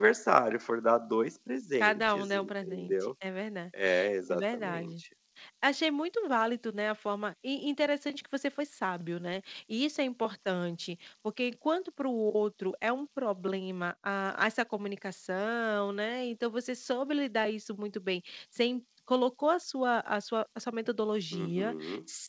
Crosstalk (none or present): present